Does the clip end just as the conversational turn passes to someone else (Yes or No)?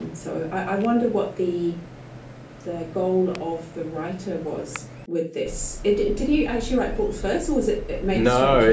Yes